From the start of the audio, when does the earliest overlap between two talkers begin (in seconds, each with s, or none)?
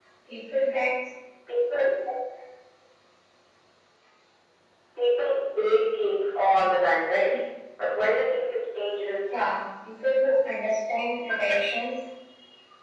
none